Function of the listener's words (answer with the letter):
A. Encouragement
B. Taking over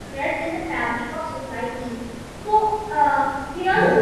A